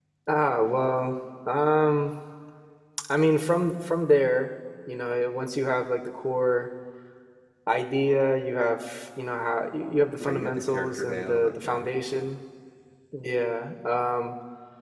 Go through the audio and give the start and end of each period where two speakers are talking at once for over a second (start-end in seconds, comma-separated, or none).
10.2-11.8